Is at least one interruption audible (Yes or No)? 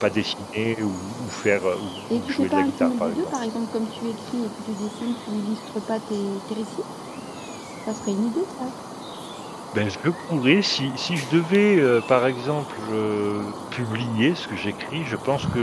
Yes